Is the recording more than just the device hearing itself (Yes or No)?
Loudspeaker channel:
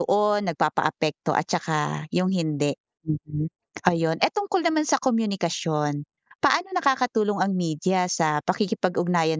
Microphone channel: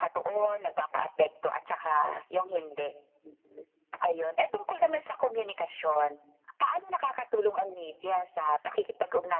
No